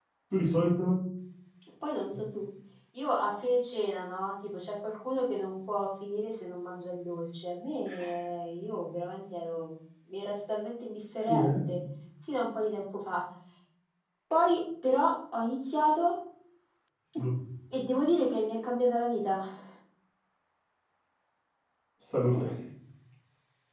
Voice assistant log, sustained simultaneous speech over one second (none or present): none